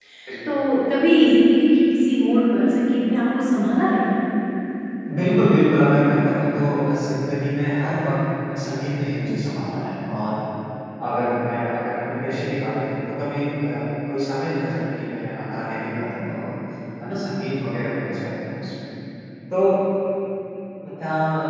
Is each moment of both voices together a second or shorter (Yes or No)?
Yes